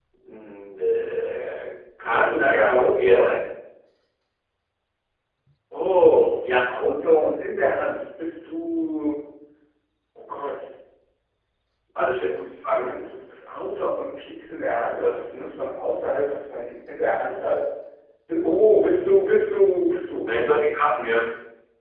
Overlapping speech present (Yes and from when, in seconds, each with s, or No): Yes, from 2.1 s